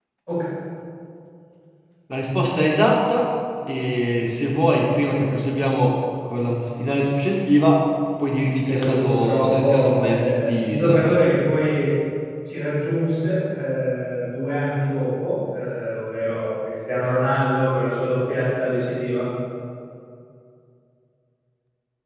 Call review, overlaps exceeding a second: present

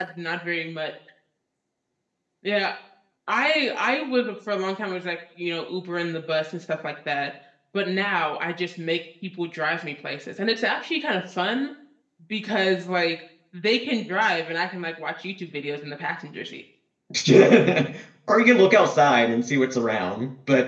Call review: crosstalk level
none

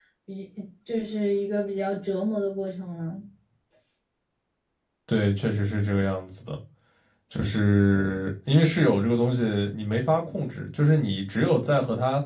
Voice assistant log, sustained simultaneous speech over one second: none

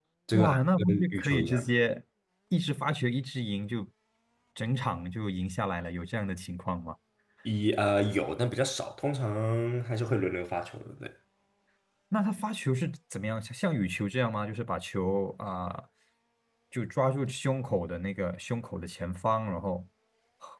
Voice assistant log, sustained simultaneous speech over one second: present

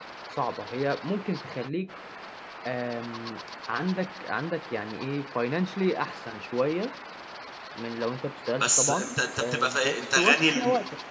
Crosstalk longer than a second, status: present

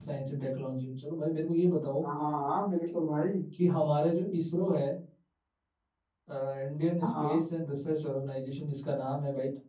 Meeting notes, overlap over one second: none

